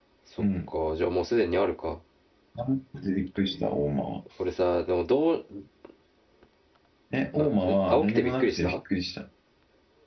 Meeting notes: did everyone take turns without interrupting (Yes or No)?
No